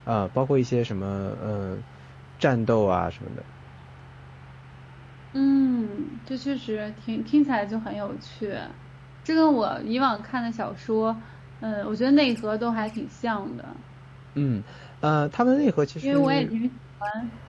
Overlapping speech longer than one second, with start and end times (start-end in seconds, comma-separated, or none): none